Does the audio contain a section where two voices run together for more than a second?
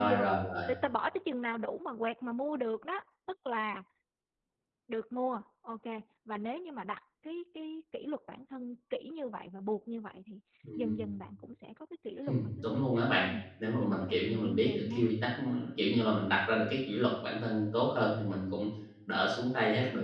Yes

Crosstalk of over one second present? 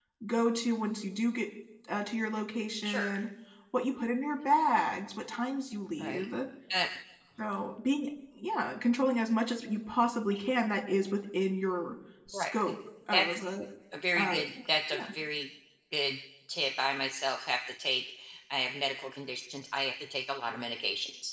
No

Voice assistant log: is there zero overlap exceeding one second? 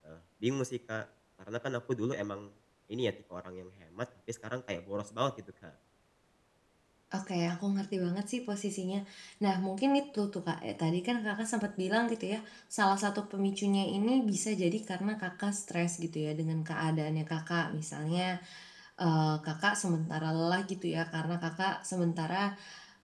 Yes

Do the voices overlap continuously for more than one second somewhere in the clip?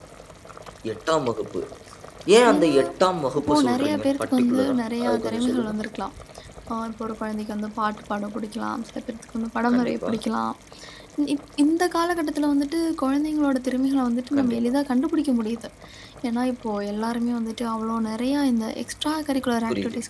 Yes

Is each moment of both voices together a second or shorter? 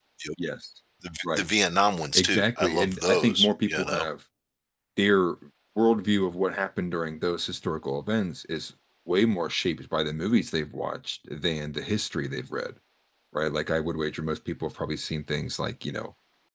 No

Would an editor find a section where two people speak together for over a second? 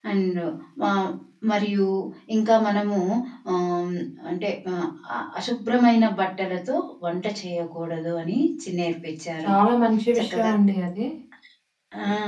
No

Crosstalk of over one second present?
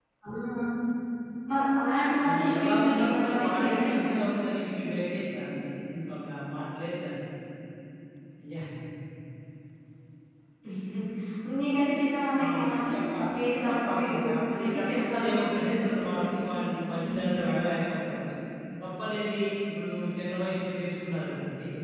Yes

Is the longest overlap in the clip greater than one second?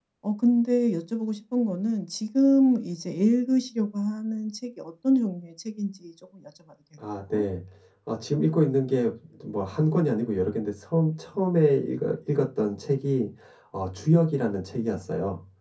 No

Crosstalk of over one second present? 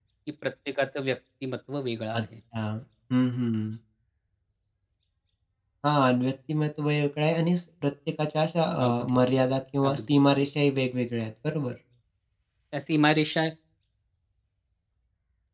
No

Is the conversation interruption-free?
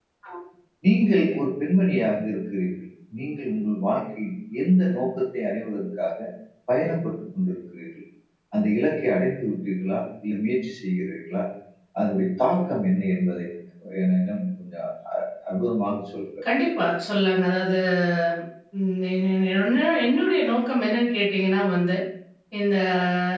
Yes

